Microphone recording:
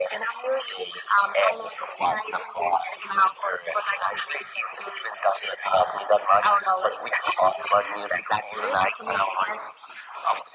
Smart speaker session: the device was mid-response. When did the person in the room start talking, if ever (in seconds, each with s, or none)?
none